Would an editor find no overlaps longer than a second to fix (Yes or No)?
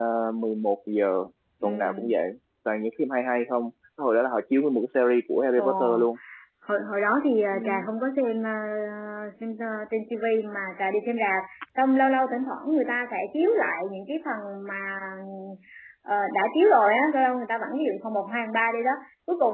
Yes